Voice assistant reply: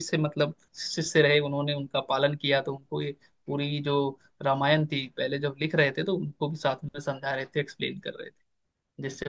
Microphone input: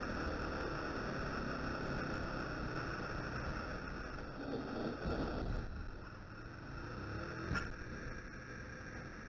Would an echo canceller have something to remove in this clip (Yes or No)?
No